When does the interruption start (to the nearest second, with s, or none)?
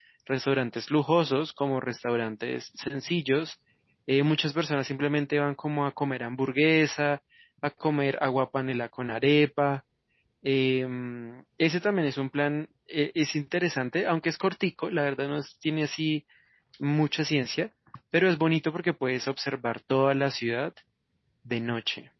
none